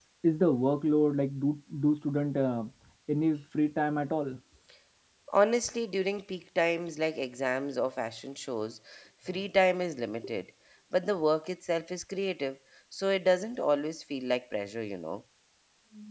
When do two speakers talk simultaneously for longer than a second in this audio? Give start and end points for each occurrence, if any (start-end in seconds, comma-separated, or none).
none